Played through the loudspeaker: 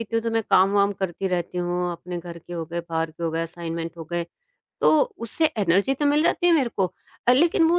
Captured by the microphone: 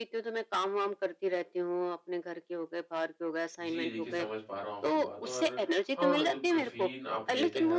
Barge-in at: 4 s

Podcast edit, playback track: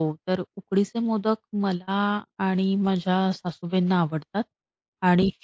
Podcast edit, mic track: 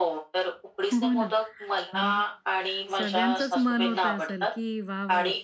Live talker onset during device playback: 1 s

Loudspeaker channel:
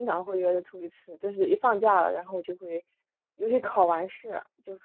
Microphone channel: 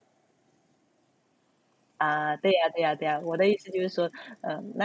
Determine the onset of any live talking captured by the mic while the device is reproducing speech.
2 s

